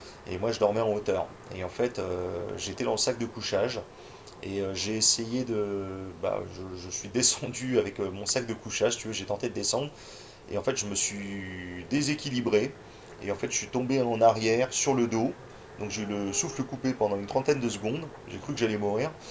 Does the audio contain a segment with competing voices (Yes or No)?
No